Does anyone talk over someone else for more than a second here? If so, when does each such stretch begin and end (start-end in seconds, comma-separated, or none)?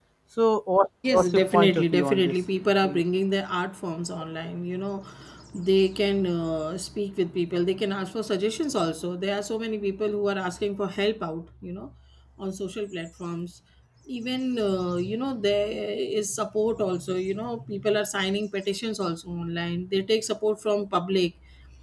1.1-2.3